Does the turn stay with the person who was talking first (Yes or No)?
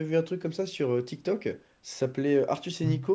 Yes